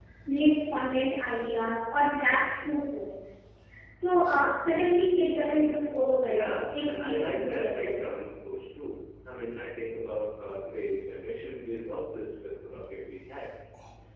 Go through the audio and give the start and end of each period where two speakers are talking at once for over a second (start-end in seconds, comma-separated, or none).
6.3-8.0